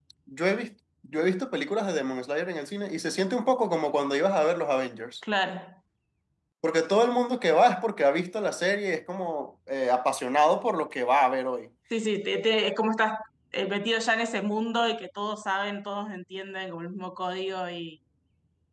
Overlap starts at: none

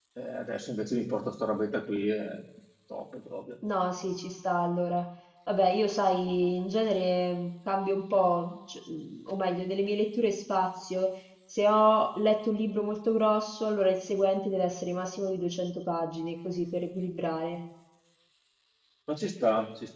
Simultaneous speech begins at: none

